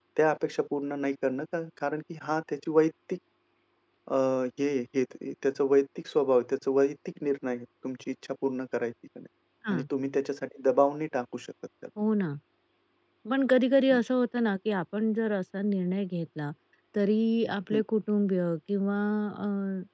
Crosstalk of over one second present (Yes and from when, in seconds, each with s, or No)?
No